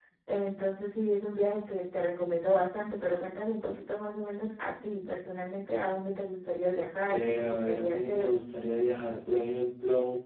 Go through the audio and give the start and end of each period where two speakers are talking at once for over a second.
7.1-8.3

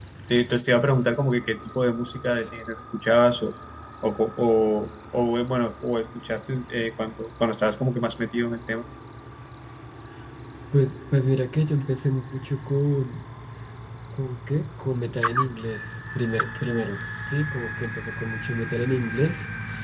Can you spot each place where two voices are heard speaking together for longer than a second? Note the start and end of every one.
none

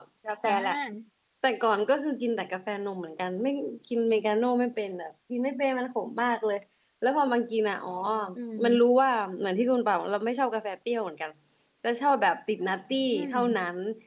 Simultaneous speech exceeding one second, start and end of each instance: none

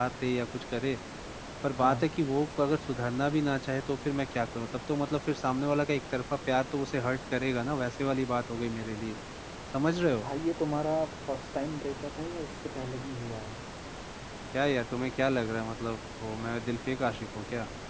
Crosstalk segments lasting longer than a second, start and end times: none

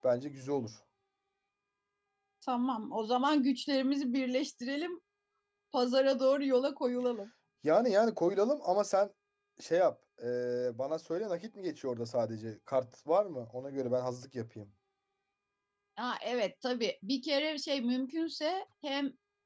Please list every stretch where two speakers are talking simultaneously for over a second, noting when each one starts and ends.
none

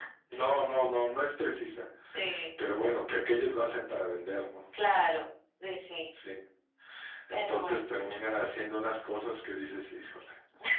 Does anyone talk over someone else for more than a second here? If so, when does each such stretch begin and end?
none

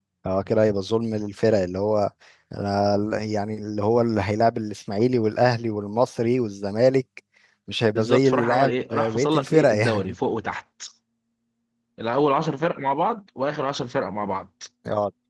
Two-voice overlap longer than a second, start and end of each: 8.0-10.1

